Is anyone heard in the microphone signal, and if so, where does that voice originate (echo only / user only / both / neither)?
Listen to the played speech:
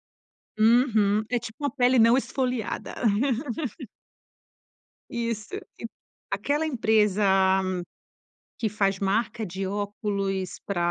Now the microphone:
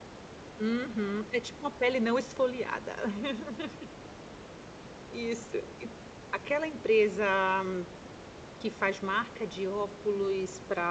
echo only